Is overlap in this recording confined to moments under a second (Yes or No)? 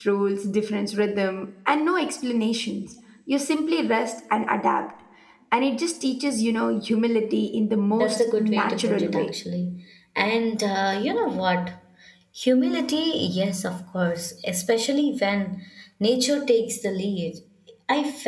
No